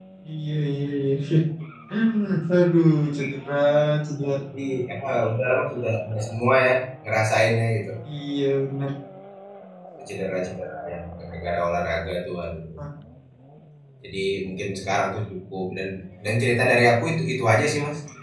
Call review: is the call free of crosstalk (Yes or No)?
Yes